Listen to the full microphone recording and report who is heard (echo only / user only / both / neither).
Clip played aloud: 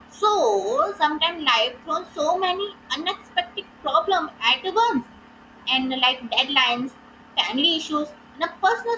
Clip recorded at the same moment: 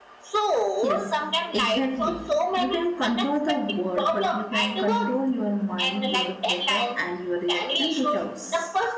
both